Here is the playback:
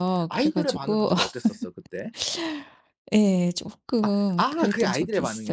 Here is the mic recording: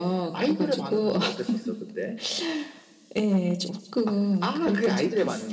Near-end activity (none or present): none